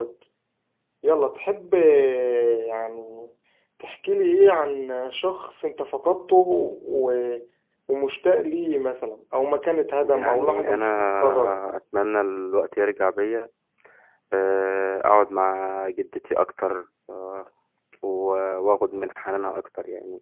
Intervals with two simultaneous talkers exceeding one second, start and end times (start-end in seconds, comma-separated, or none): 10.0-11.6